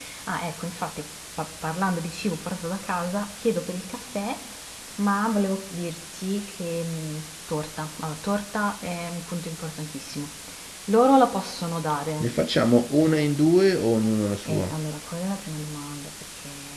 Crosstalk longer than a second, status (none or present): none